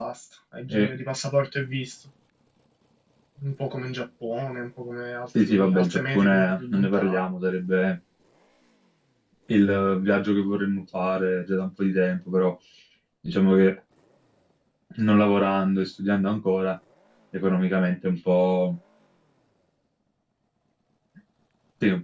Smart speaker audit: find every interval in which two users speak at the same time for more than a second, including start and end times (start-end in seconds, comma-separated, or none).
5.5-7.2